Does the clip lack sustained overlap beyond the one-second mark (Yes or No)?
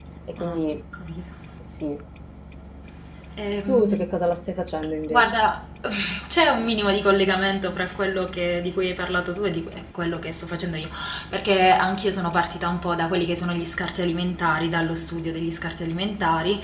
Yes